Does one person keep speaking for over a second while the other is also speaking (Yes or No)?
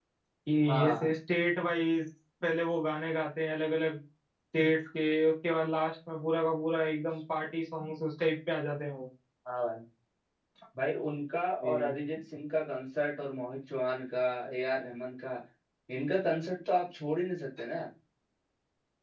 No